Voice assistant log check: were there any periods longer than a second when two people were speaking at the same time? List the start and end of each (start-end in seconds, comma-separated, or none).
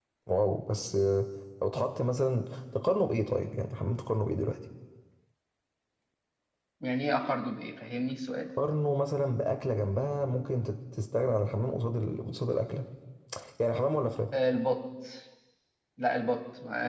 none